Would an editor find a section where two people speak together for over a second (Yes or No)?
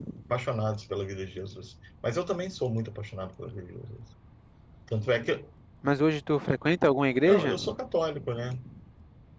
No